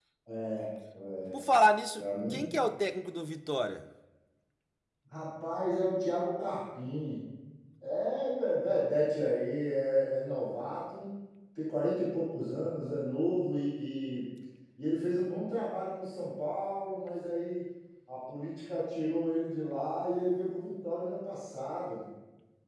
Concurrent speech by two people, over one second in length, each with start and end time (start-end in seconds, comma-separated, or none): none